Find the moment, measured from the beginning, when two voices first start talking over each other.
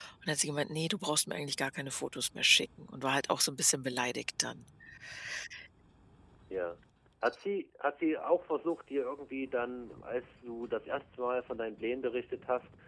none

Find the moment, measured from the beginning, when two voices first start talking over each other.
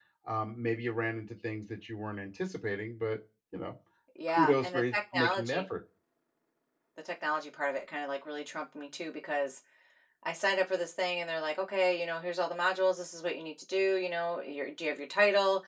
4.3 s

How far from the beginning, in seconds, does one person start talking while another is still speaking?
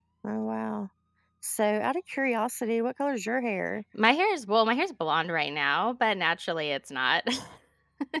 none

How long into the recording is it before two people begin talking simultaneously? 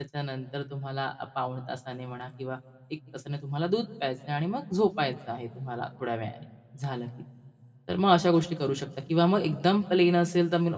none

